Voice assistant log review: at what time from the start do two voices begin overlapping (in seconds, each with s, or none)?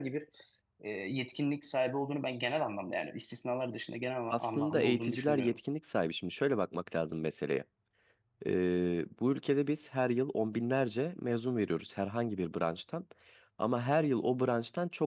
4.3 s